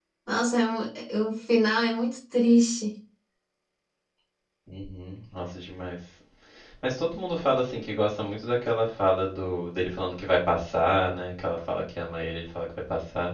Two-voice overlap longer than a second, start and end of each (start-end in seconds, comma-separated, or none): none